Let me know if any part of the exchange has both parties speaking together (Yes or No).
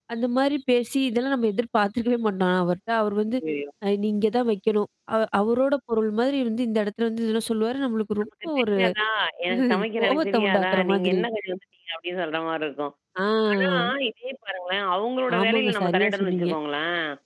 Yes